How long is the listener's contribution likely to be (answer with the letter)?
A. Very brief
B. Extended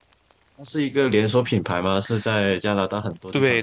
B